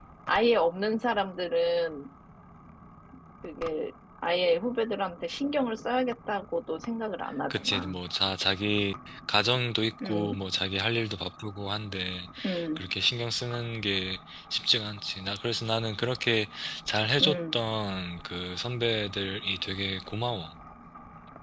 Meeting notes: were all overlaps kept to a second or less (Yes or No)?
Yes